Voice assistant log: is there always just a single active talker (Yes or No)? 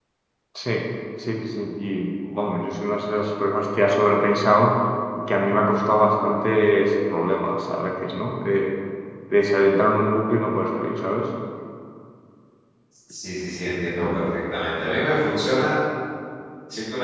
Yes